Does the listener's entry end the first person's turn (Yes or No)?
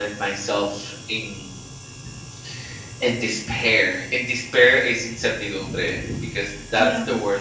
No